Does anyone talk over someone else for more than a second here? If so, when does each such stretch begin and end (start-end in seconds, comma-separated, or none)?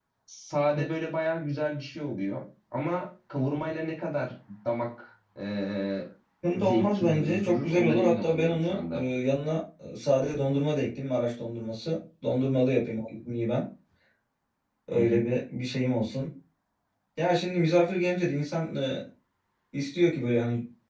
6.6-9.0